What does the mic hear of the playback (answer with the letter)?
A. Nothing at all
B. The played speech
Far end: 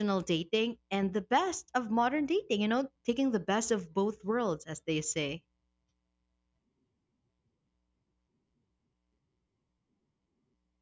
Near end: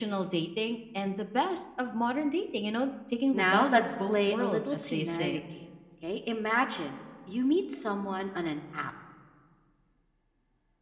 B